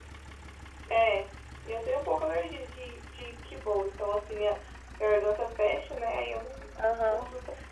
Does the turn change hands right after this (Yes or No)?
Yes